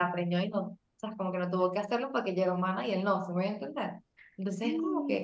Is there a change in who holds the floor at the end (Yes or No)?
No